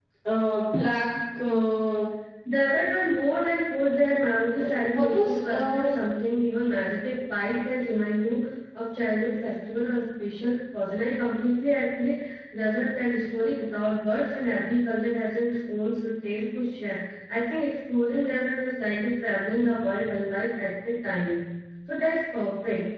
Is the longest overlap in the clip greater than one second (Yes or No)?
Yes